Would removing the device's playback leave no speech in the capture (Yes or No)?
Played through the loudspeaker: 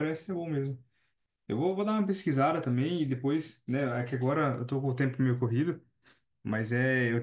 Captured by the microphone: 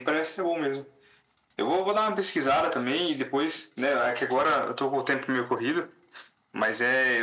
Yes